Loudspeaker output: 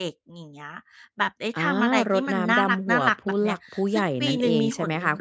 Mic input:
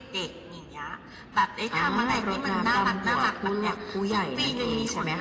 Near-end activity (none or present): none